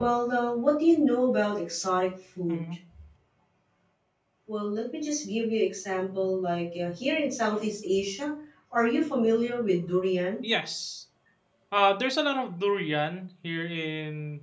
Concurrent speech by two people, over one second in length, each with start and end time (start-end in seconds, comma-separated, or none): none